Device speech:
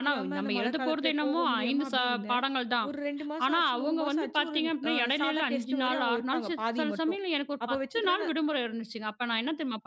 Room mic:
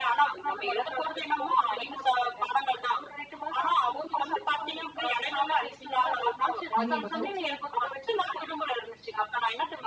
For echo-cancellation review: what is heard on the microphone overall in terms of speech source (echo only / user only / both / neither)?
both